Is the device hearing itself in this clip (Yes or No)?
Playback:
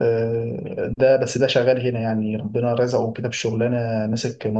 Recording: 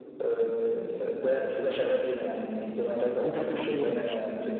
Yes